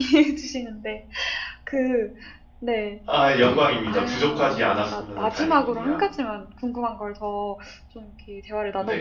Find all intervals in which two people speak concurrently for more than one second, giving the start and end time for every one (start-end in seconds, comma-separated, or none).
3.9-6.0